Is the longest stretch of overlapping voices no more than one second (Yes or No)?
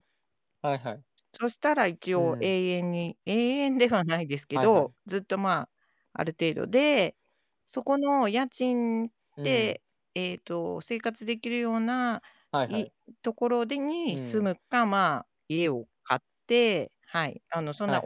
Yes